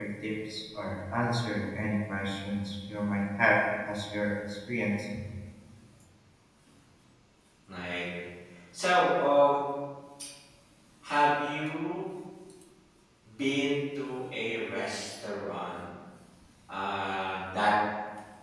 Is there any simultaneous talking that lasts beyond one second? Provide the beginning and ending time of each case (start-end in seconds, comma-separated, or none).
none